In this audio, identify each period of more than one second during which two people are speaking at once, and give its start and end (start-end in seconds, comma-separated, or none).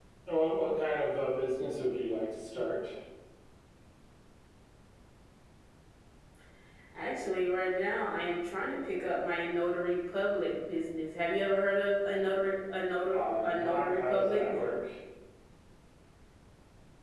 13.1-14.4